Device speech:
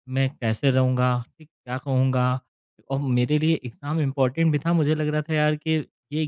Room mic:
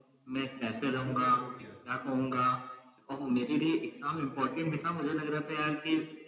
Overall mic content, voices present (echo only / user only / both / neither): both